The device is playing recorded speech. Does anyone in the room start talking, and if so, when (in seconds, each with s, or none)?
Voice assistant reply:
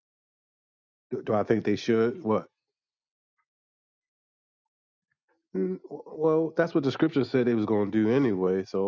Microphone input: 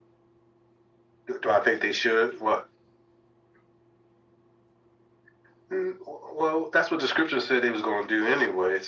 none